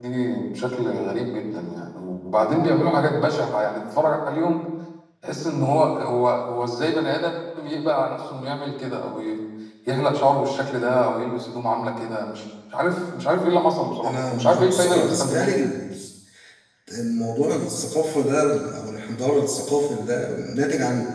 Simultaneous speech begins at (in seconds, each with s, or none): 14.0 s